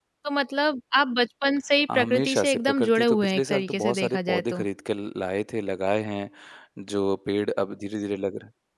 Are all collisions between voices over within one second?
No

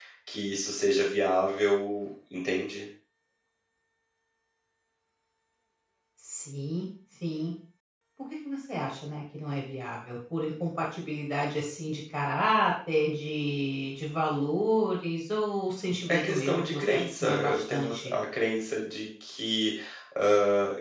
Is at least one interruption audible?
Yes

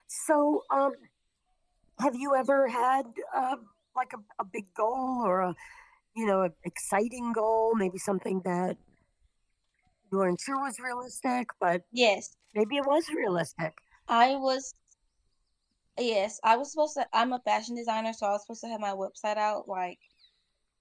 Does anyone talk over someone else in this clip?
No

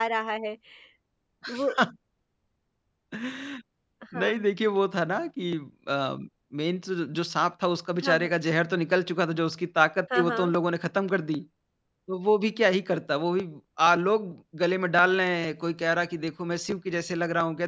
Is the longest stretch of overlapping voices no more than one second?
Yes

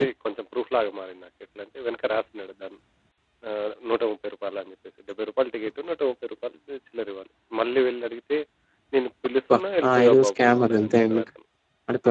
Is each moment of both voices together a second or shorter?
No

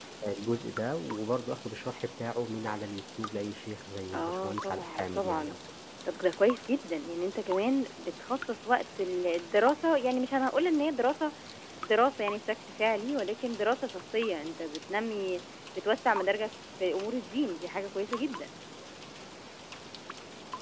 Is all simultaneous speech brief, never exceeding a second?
No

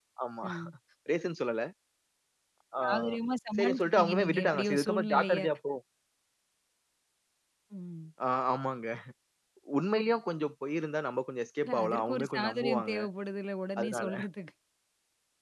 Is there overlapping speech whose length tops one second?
Yes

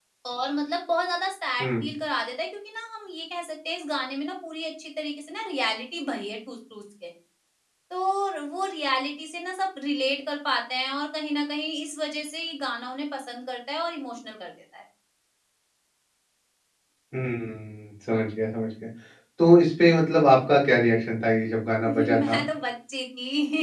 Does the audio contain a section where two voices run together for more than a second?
No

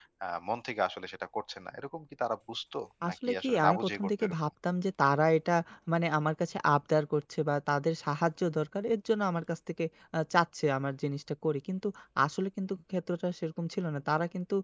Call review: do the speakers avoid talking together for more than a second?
No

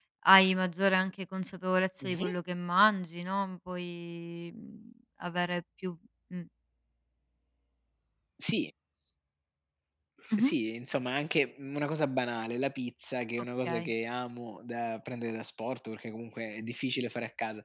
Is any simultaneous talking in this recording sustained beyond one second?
No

